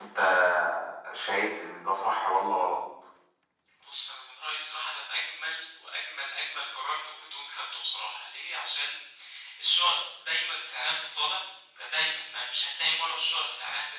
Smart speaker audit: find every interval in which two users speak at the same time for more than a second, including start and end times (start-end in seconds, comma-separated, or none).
none